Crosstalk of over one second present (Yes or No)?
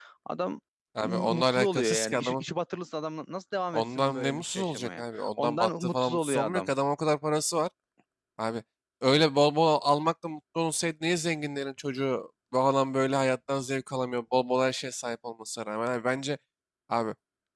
Yes